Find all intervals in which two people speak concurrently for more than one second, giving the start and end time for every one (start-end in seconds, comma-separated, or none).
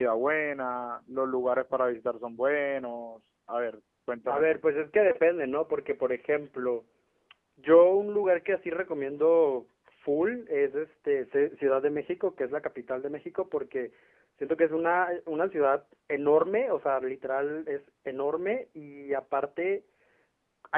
none